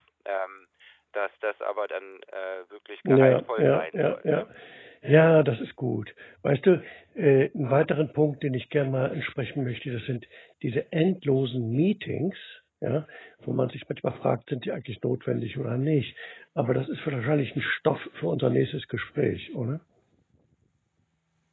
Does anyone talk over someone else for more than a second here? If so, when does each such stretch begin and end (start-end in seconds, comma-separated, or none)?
3.0-4.4